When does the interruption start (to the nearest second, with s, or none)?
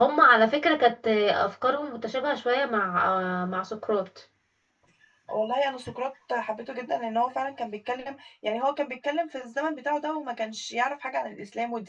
none